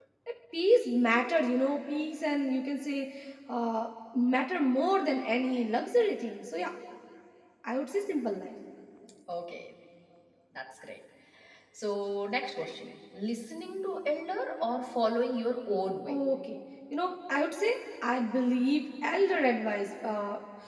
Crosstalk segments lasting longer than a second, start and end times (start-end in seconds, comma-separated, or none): none